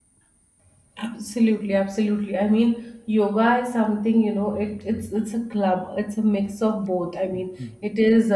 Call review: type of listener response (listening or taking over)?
listening